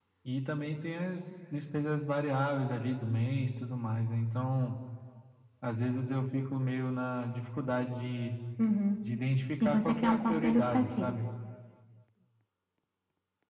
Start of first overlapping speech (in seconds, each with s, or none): 9.6 s